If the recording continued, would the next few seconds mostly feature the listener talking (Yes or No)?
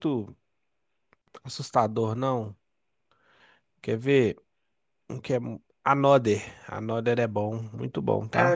Yes